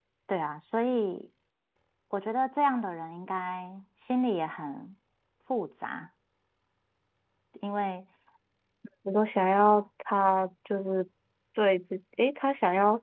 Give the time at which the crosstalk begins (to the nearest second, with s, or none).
none